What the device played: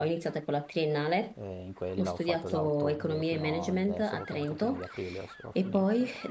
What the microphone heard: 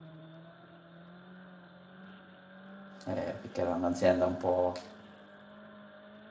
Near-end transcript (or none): eh, perché era un'azienda un po'